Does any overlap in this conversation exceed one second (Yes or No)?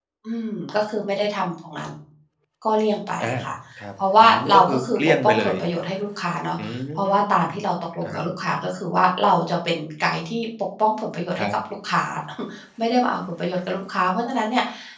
Yes